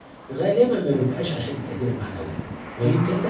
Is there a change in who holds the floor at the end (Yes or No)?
No